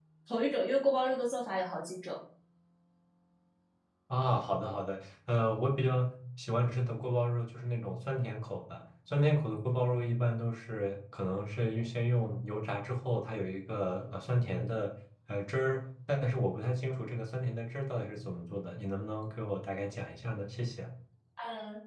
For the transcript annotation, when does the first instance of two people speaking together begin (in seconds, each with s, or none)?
none